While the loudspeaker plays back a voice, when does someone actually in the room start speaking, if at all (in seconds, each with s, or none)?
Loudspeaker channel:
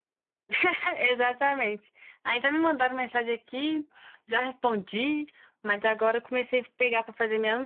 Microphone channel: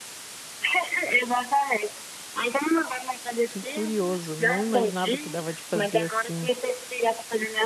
3.5 s